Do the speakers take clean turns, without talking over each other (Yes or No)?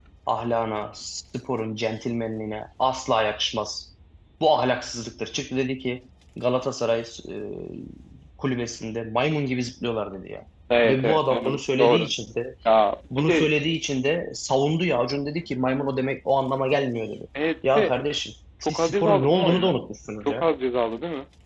No